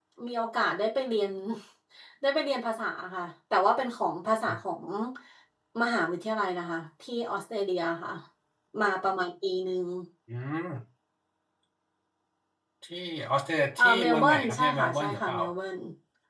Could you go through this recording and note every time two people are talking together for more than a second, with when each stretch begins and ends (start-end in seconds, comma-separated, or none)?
13.8-15.4